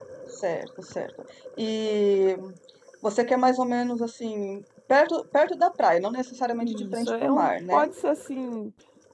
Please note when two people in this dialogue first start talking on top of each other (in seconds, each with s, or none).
6.6 s